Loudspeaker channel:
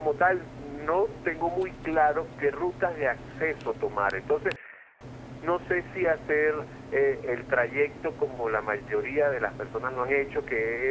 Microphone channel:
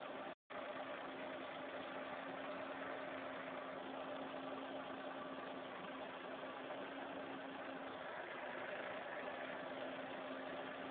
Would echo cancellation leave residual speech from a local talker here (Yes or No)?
No